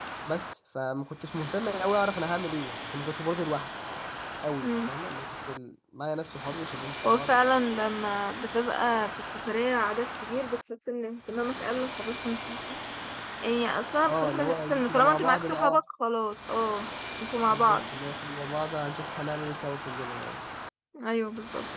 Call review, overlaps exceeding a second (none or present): present